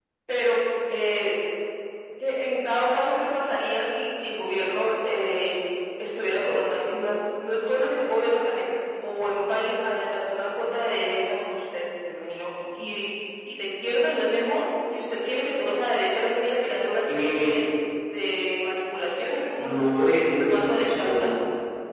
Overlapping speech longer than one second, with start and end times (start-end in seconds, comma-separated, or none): 19.6-21.3